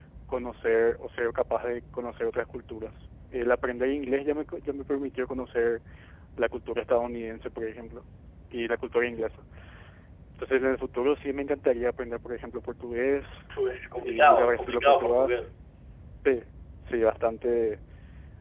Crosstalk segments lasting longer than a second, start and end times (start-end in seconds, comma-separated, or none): 14.0-15.3